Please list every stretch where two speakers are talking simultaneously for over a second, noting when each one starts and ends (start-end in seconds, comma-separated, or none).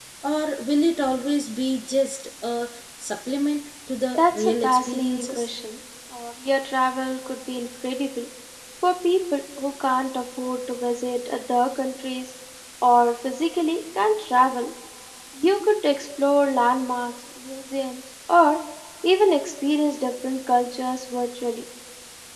4.2-5.5